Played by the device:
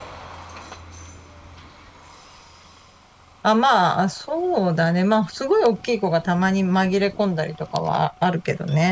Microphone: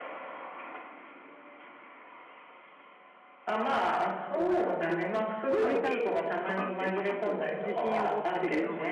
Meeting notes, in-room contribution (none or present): present